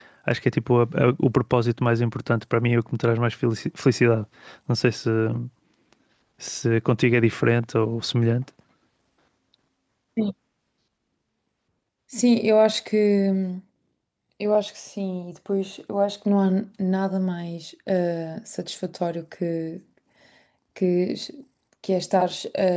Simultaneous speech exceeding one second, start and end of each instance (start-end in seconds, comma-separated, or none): none